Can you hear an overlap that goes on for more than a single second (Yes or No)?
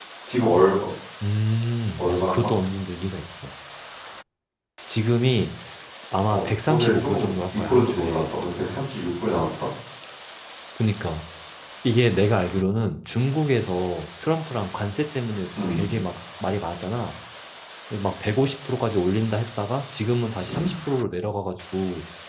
Yes